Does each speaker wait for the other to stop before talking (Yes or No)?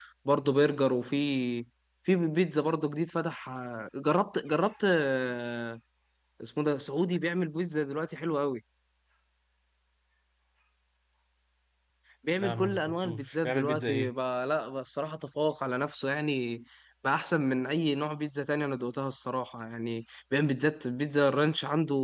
No